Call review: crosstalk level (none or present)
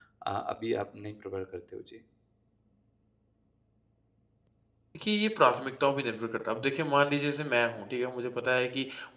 none